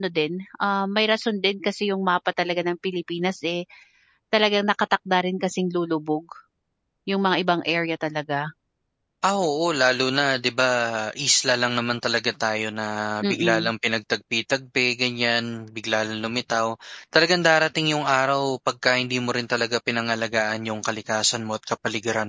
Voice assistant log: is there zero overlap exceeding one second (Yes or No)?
Yes